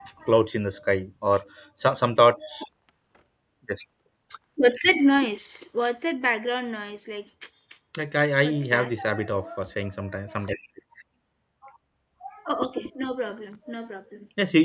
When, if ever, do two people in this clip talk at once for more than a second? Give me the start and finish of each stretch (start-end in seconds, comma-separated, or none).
none